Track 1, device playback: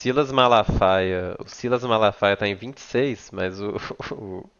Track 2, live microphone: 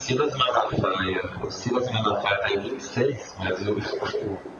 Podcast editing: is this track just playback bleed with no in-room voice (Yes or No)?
Yes